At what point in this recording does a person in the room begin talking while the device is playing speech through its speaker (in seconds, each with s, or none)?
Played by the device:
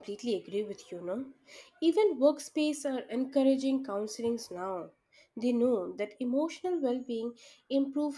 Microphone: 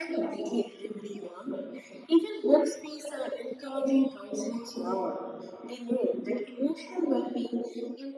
none